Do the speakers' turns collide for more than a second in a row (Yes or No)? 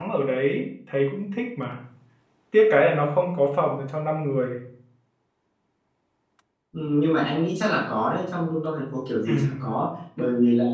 No